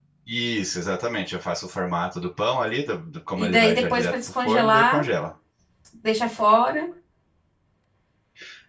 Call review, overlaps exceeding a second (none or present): present